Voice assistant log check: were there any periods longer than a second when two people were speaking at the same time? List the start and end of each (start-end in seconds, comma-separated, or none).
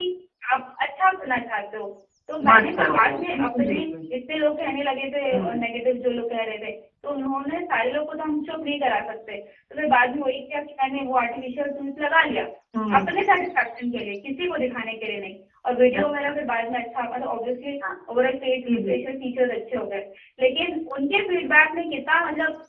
2.5-3.8